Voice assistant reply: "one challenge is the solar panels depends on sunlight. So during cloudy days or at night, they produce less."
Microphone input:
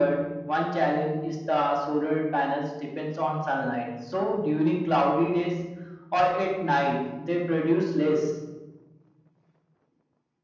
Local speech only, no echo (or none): none